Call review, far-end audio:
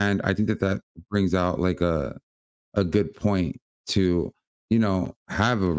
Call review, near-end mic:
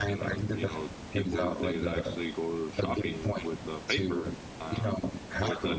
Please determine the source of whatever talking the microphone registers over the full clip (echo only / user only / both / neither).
both